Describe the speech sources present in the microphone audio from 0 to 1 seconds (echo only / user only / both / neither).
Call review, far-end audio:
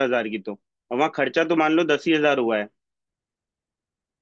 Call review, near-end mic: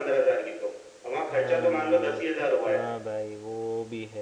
echo only